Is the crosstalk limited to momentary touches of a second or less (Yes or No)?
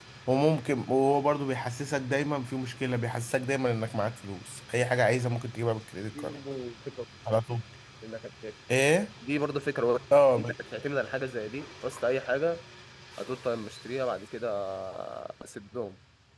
Yes